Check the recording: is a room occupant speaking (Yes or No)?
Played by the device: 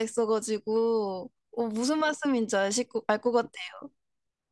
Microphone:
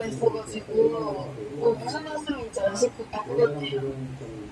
Yes